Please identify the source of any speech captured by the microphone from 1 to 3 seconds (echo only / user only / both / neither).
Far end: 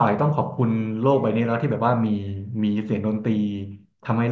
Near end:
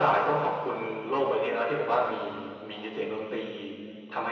echo only